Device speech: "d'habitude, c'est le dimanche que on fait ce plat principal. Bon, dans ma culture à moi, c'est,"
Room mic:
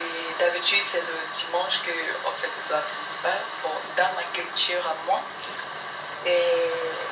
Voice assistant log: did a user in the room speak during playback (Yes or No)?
No